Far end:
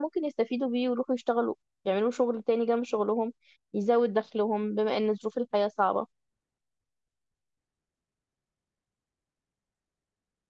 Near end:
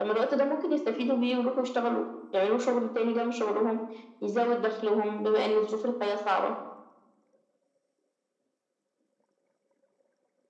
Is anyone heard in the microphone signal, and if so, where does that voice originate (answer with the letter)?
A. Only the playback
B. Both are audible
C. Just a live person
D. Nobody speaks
A